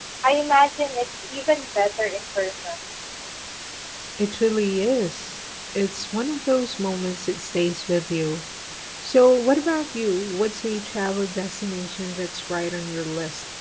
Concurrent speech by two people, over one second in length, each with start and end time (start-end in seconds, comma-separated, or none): none